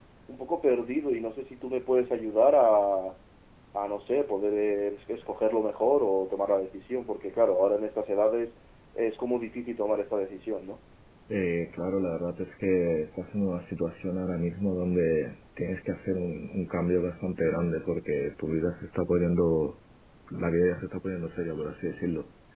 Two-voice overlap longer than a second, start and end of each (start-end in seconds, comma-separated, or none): none